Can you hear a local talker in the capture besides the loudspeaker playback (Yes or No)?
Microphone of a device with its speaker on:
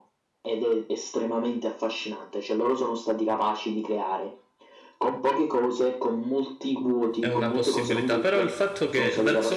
Yes